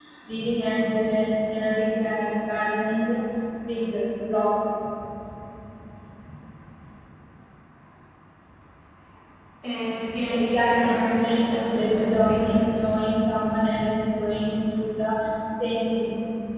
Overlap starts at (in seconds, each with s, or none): 10.3 s